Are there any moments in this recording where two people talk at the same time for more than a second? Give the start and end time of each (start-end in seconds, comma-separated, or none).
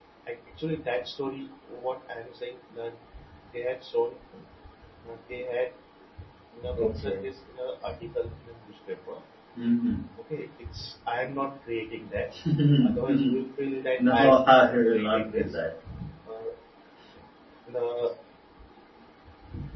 14.0-15.5